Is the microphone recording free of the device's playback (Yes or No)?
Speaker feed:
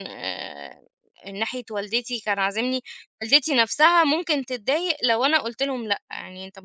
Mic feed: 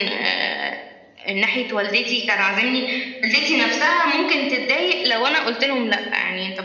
No